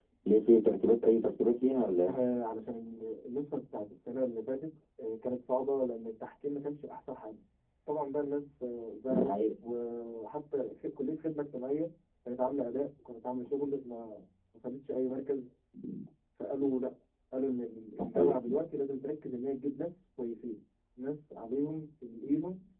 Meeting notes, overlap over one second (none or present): none